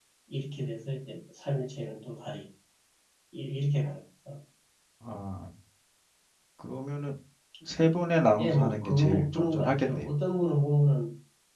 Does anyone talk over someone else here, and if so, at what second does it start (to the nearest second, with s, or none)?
8 s